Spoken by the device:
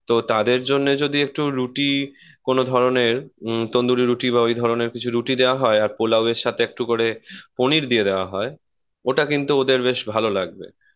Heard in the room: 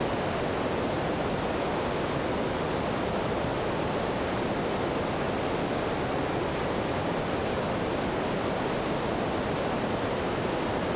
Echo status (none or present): none